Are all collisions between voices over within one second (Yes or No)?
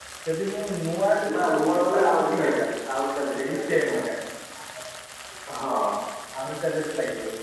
No